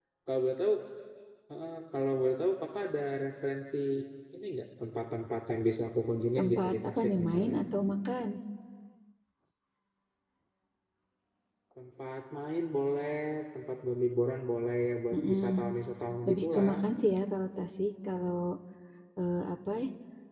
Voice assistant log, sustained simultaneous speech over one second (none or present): present